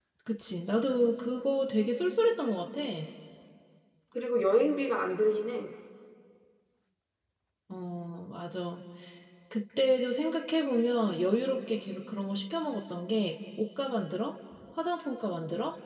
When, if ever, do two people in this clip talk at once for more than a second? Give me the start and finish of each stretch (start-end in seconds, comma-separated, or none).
none